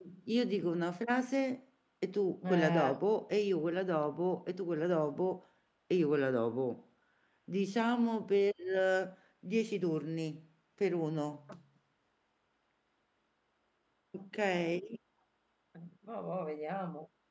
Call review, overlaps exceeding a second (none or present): none